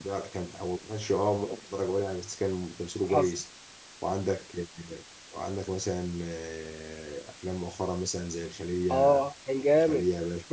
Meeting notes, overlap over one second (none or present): none